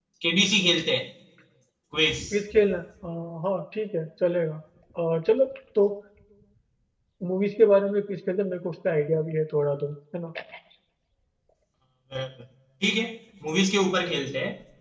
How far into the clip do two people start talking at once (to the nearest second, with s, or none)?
none